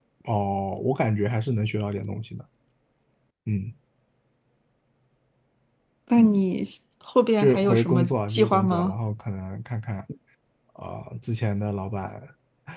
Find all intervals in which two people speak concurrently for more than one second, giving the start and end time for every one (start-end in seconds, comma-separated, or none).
7.4-8.9